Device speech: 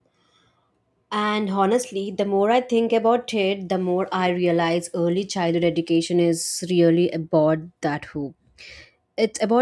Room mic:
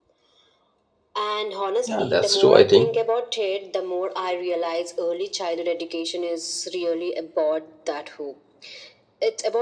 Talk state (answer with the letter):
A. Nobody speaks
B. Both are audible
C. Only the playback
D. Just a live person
B